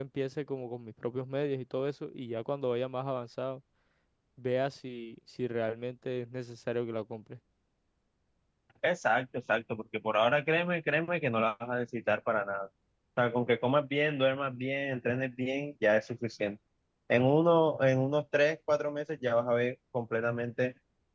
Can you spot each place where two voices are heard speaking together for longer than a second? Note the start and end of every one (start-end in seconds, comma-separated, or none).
none